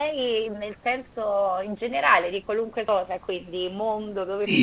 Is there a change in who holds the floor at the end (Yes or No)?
Yes